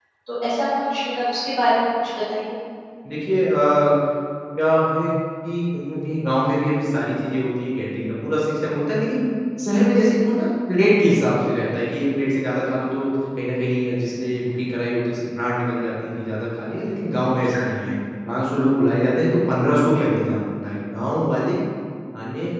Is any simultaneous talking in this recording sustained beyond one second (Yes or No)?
No